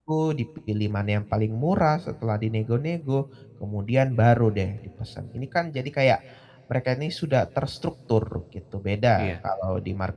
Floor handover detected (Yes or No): No